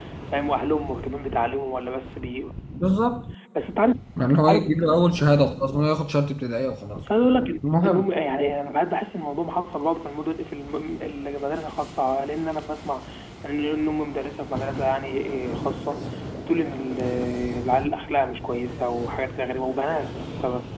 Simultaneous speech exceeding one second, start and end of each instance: none

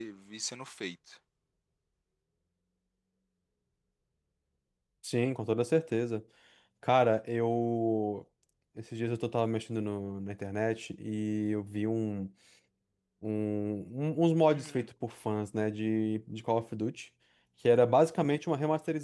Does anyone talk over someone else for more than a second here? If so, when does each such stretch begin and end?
none

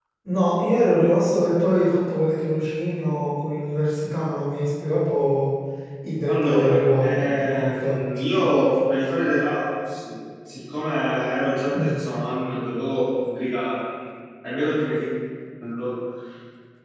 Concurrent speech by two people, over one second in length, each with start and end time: 6.3-8.0

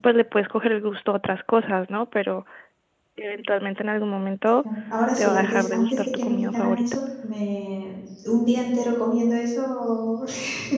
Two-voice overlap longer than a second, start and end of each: 5.2-6.8

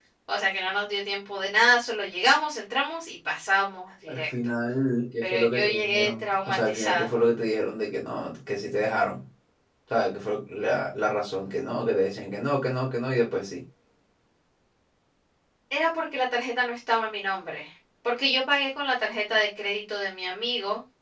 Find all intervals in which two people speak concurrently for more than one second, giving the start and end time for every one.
5.2-7.1

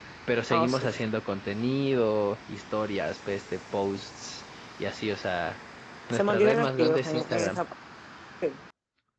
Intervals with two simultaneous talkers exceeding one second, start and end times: 6.1-7.6

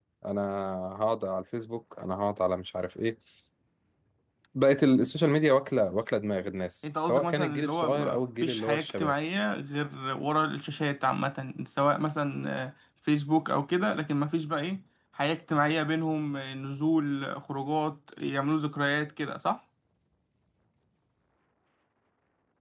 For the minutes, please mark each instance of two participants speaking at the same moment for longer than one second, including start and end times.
6.8-9.1

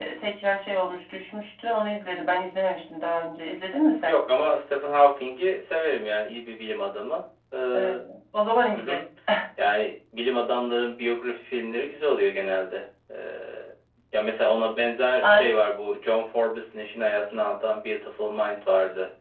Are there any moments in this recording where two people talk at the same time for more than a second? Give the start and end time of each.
none

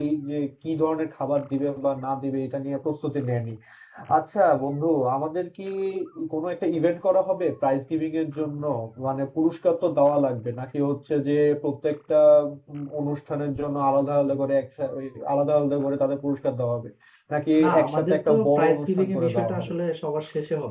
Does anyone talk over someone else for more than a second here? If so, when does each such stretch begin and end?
17.6-19.7

